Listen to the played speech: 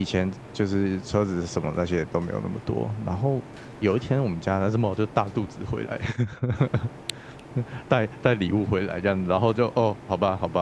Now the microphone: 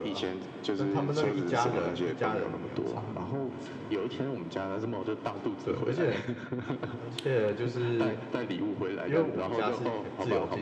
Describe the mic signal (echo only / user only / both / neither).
both